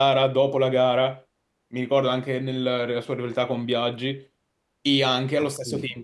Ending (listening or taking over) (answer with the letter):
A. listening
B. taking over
A